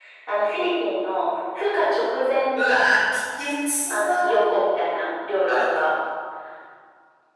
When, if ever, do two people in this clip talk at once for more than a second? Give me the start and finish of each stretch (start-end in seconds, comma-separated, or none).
none